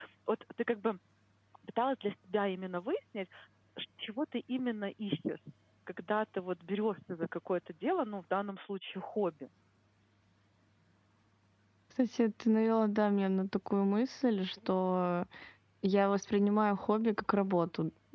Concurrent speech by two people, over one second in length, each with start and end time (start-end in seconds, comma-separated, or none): none